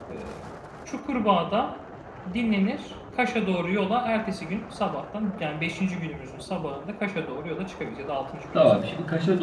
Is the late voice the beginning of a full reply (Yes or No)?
Yes